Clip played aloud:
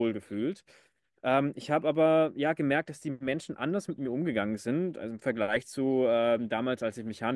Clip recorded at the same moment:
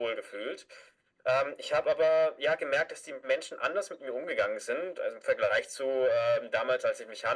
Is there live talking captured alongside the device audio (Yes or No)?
No